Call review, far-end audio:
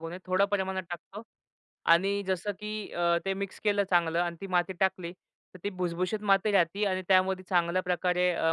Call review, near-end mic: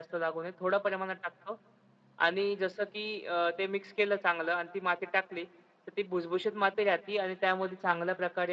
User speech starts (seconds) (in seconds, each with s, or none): none